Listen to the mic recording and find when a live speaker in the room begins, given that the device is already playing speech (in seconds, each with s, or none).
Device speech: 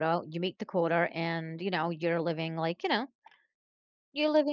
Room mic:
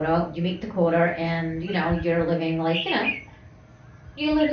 none